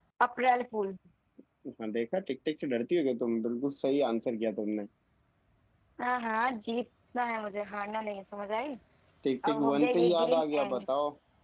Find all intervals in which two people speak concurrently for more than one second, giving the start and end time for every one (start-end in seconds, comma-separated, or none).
9.5-10.8